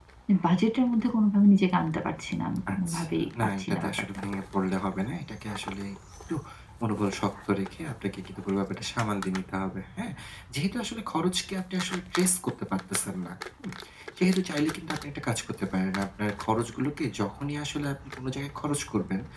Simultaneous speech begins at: 2.7 s

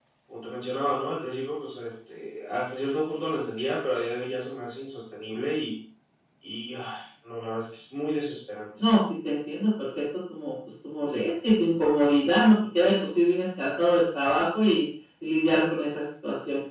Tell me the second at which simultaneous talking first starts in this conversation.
none

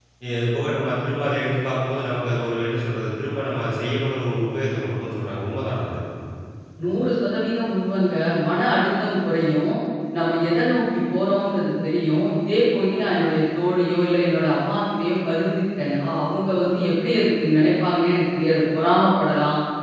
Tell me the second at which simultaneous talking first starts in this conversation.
none

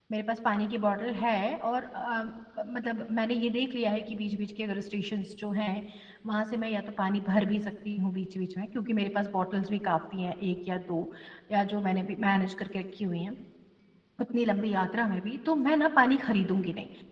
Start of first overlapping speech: none

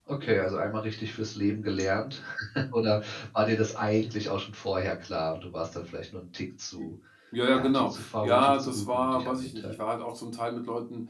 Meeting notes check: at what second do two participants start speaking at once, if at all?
7.5 s

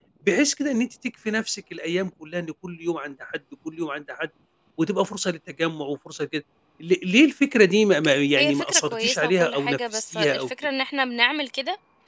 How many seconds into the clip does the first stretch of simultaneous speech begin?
8.3 s

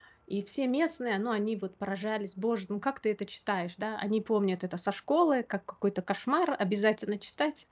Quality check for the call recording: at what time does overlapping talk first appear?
none

